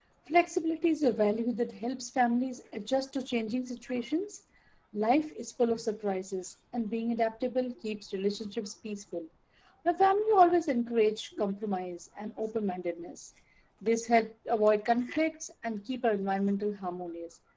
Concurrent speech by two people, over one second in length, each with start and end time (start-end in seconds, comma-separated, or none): none